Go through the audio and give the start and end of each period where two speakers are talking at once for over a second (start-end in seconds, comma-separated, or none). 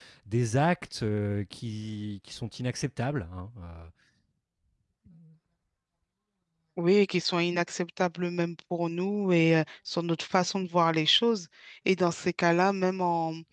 none